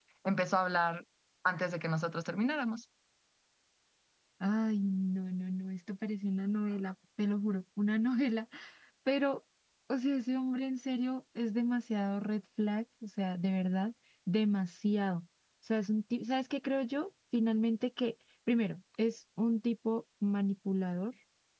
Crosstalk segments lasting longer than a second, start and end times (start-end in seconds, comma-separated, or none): none